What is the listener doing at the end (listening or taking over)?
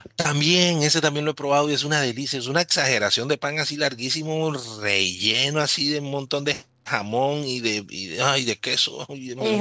taking over